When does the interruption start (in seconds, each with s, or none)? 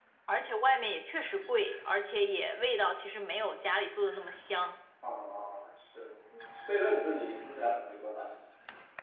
none